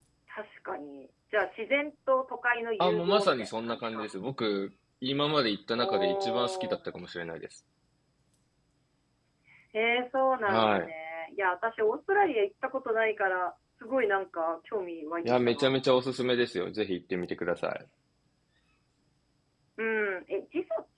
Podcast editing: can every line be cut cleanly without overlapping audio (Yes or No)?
No